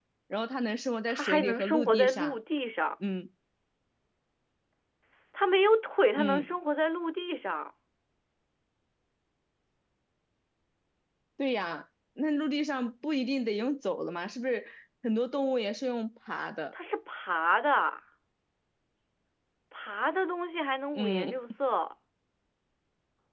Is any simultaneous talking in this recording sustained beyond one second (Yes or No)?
Yes